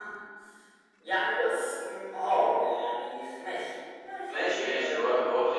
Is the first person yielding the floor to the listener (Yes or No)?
Yes